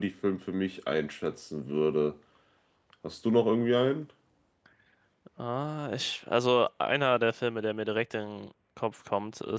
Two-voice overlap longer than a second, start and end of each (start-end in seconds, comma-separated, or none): none